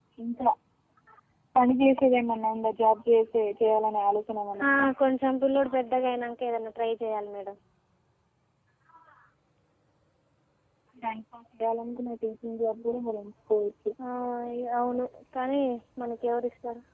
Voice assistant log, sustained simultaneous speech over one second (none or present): none